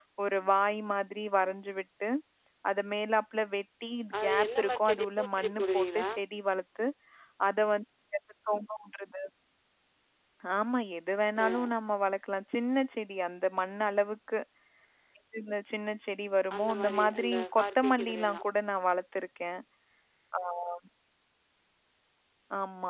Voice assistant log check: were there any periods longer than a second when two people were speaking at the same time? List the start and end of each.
4.2-6.1, 16.6-18.4

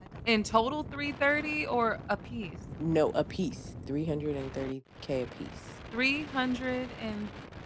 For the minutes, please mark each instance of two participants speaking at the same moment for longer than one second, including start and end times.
none

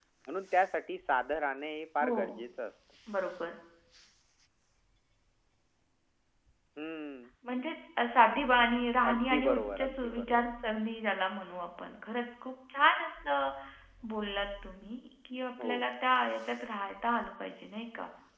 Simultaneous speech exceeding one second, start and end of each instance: 9.1-10.4

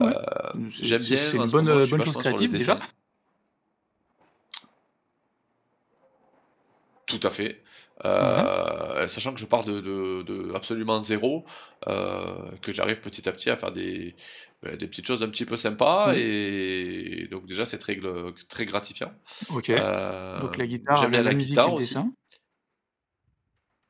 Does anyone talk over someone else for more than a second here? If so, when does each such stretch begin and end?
0.8-2.8, 20.4-22.0

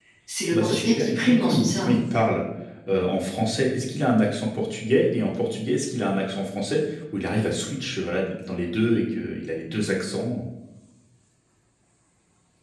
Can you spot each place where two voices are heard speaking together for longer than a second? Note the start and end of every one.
0.5-1.9

